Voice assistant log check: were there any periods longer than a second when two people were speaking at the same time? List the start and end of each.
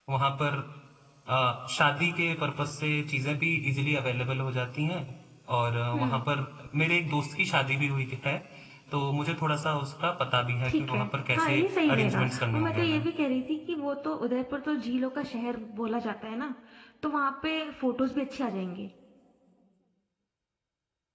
11.4-13.0

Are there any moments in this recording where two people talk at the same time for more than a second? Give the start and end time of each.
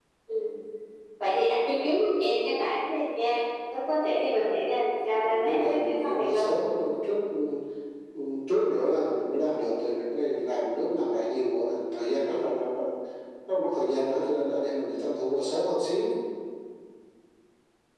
5.2-6.5

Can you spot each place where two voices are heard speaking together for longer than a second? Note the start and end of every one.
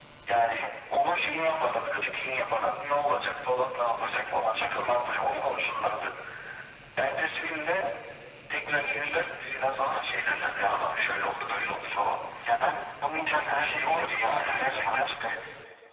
13.1-15.1

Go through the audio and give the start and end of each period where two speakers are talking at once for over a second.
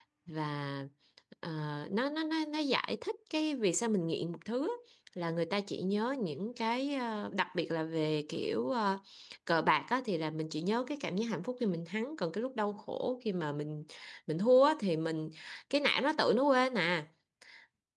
none

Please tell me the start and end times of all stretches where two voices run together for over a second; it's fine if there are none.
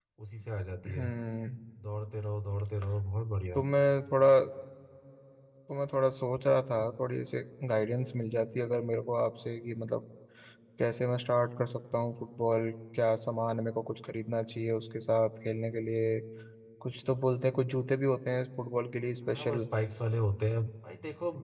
none

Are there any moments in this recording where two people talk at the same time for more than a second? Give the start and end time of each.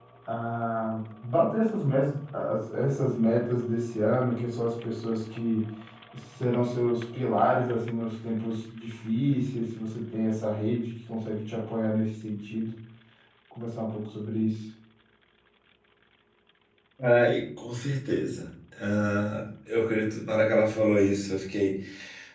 none

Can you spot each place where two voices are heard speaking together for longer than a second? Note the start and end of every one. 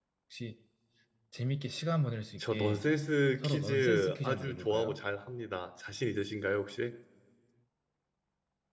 3.4-5.0

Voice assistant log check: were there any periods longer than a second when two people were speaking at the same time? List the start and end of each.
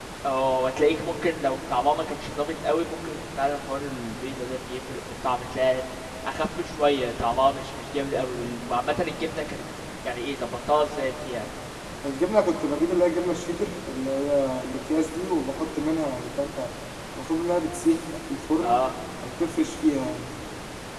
none

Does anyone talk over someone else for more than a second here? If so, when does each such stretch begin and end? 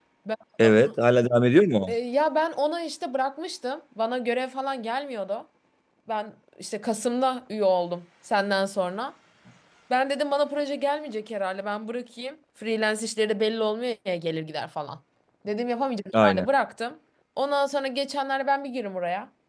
none

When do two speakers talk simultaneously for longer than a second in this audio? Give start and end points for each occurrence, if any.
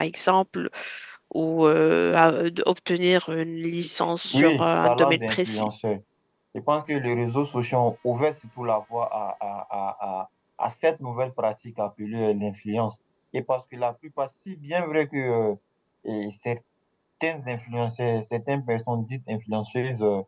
4.2-5.7

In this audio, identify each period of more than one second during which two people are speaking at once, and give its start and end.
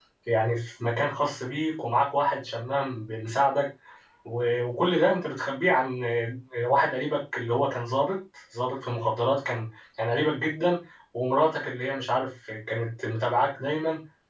none

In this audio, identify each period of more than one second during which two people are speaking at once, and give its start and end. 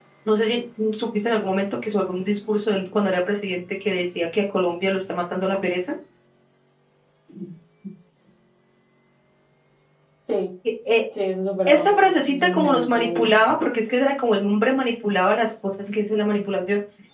11.7-13.3

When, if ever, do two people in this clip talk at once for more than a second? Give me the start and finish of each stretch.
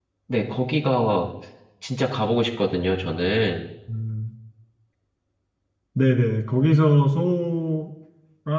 none

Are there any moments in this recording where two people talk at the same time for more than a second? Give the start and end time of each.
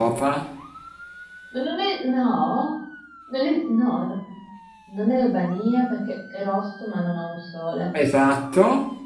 none

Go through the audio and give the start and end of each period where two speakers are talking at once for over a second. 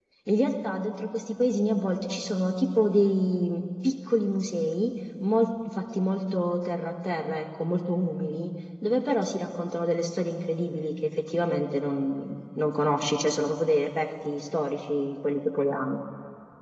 none

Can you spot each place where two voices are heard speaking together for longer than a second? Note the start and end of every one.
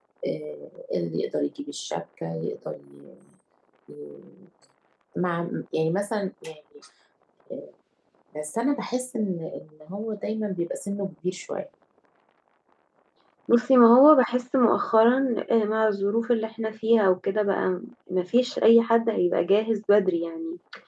none

